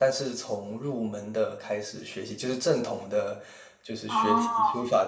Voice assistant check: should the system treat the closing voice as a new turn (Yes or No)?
No